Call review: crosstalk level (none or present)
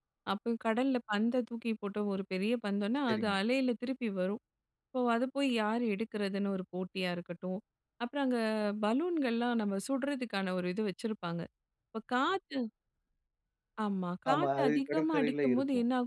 present